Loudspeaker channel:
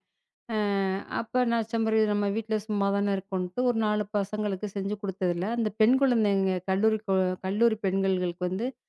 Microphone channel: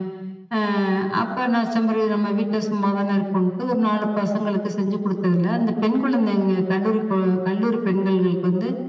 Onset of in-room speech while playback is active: none

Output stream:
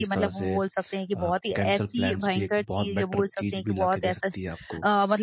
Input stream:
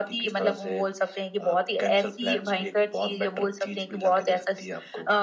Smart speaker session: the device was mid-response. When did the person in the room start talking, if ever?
none

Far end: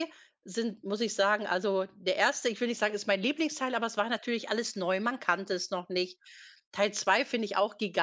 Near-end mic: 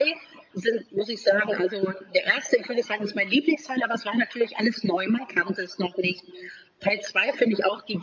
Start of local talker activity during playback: none

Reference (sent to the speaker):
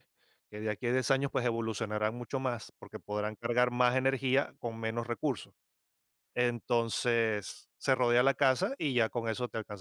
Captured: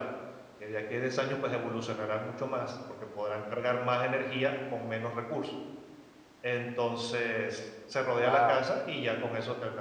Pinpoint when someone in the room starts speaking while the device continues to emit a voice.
8.2 s

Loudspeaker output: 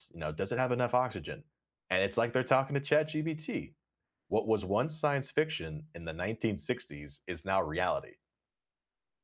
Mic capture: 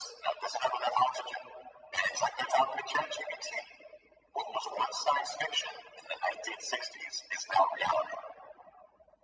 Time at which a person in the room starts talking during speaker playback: none

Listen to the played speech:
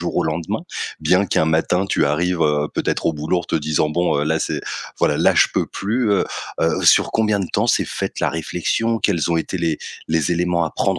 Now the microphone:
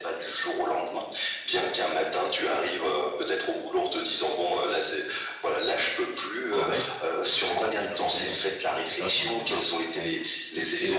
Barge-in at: 6.5 s

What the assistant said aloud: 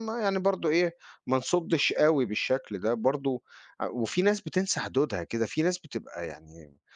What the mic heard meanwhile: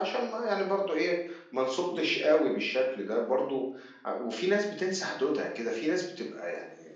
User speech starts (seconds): none

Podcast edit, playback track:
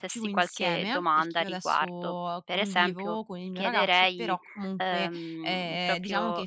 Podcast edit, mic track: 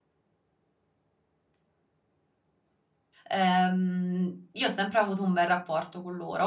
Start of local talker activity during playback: 3.3 s

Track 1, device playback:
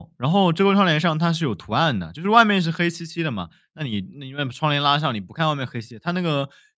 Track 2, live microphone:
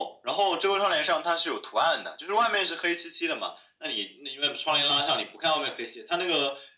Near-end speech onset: none

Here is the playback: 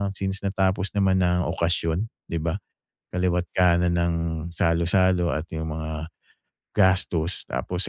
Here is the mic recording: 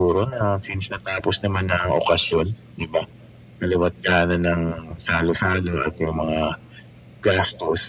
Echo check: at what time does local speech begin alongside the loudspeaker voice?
none

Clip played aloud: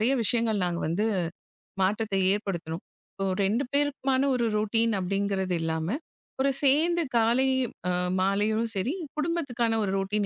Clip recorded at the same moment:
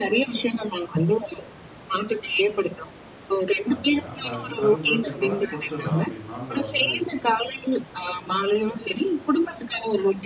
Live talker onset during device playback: 3.7 s

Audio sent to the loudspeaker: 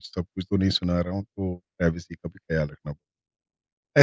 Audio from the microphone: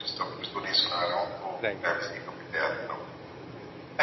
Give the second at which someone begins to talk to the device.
1.6 s

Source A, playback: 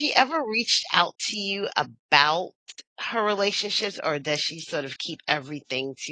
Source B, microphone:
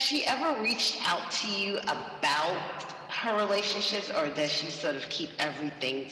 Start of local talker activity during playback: none

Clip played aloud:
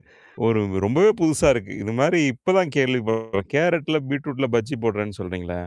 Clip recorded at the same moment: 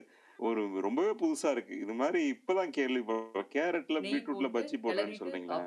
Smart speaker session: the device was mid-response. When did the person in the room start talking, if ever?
4.0 s

